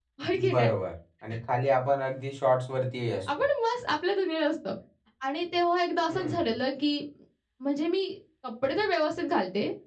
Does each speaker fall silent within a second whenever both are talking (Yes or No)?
Yes